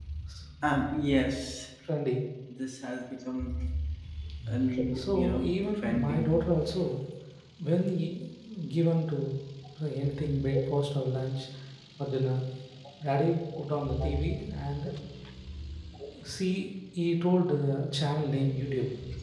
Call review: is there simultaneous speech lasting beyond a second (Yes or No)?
Yes